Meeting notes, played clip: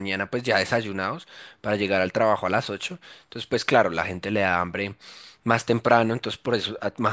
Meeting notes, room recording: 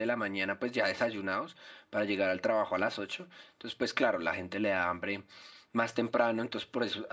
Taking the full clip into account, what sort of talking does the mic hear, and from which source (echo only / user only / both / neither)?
echo only